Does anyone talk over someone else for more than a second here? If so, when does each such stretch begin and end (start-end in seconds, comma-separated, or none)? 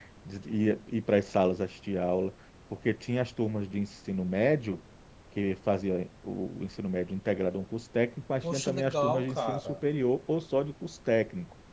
8.4-9.8